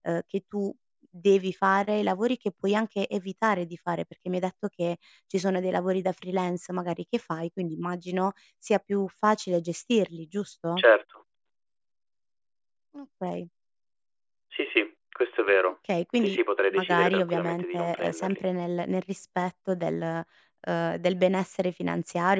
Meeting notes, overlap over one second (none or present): present